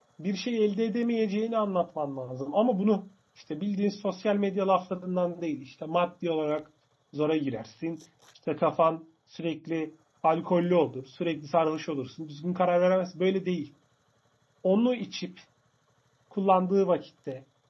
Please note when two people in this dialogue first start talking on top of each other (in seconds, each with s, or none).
none